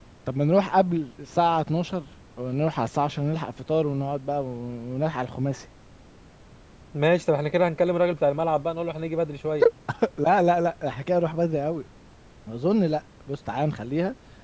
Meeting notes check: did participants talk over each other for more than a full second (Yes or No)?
No